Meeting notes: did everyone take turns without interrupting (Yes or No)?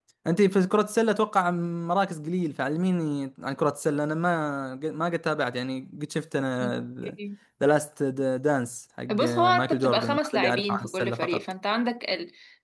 No